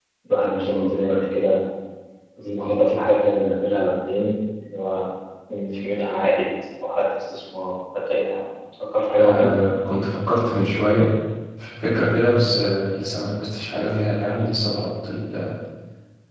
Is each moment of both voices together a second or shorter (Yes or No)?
Yes